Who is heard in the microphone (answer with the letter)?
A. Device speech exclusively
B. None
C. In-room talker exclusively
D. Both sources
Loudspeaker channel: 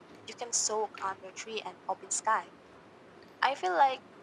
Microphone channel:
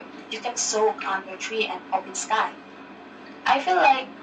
A